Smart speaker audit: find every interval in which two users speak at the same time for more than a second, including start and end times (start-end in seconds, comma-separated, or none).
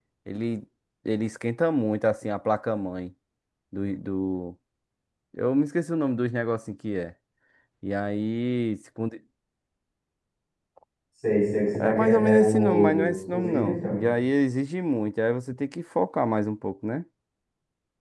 11.8-14.0